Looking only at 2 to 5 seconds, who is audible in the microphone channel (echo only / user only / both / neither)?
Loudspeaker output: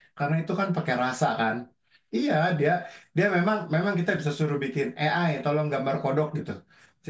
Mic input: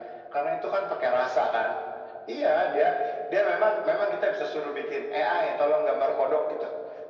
echo only